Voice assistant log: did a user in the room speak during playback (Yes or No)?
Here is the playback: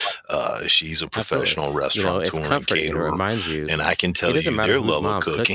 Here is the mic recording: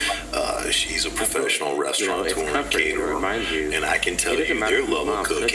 No